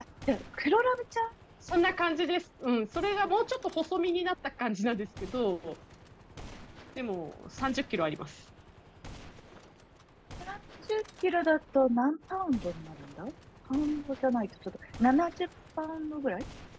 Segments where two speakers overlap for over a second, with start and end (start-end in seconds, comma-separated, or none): none